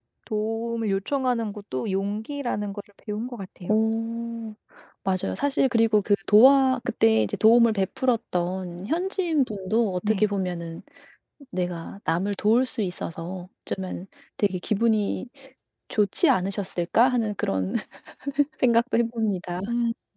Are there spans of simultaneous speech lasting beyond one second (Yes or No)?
No